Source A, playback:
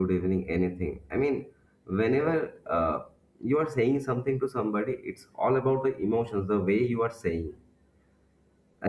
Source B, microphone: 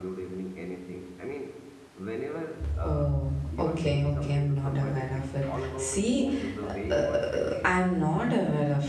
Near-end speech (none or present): present